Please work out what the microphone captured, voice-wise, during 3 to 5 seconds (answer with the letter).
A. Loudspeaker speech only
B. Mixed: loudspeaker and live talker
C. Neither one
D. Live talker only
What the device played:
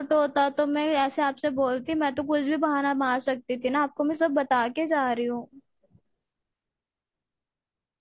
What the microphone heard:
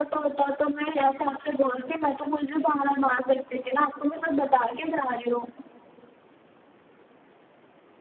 A